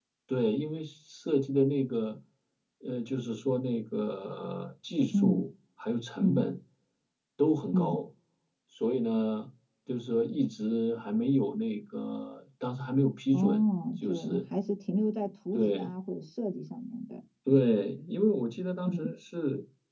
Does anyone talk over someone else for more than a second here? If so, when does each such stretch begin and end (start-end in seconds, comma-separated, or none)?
none